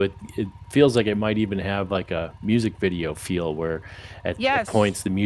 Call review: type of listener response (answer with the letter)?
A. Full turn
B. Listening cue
B